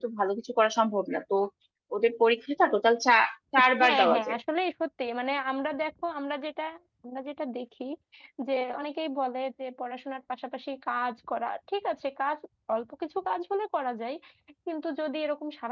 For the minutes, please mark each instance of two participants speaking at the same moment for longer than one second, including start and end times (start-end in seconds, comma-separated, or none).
none